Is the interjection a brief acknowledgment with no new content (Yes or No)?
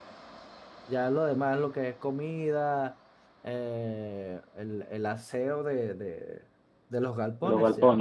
Yes